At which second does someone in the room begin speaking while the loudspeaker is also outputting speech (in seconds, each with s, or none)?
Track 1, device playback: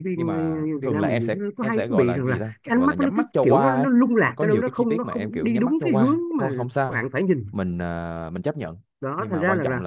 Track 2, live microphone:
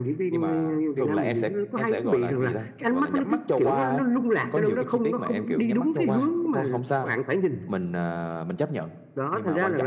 none